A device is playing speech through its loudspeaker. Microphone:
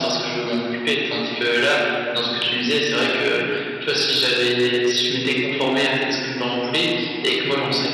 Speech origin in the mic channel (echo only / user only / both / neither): echo only